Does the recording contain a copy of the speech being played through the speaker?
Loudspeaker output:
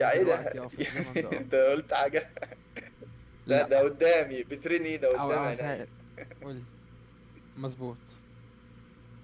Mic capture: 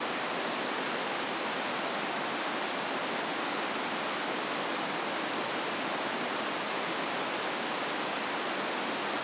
No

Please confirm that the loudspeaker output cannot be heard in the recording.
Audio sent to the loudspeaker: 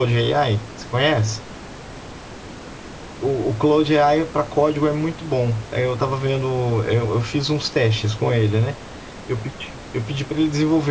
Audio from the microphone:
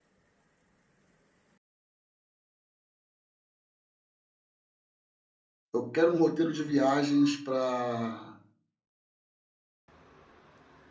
Yes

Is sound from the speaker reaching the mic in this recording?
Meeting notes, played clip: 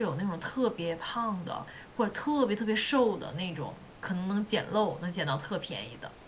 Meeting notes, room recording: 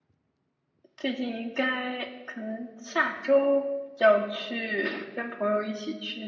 No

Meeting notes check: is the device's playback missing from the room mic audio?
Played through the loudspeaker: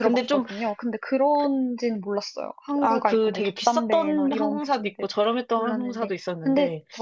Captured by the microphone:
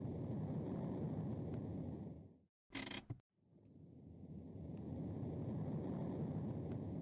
Yes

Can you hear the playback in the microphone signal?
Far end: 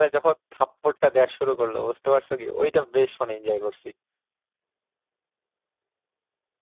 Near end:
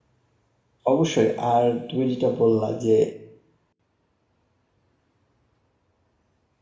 No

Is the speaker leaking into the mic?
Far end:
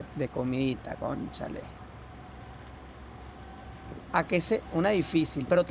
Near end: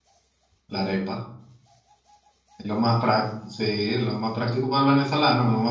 No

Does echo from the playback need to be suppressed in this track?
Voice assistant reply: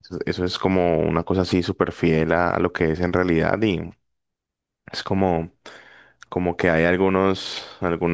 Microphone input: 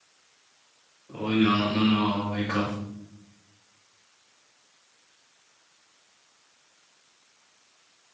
No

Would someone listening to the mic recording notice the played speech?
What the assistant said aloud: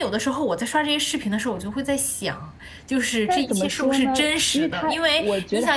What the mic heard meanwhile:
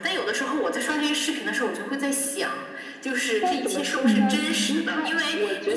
Yes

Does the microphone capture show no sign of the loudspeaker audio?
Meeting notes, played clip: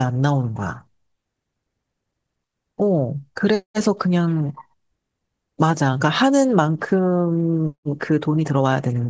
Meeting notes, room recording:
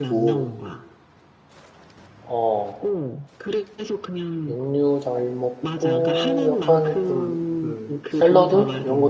No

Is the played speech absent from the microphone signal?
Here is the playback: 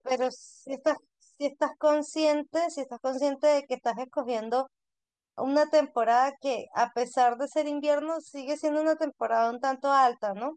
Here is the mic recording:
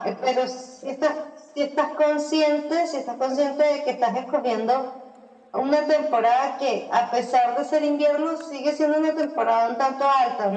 No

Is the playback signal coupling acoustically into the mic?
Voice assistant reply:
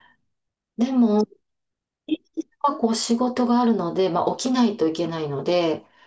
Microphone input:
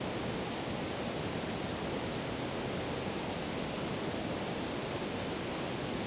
No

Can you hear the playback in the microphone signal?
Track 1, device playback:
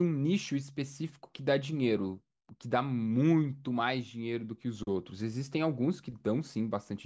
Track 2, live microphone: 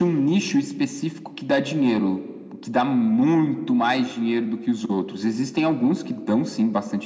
Yes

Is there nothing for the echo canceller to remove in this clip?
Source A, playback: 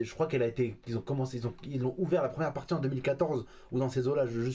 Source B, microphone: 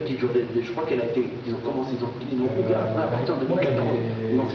No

